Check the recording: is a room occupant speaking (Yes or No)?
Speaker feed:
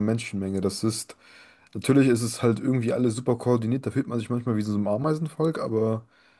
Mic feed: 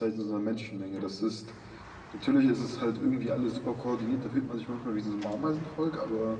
No